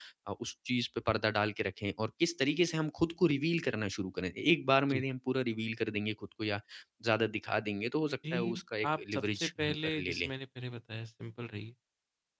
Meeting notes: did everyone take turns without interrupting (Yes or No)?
No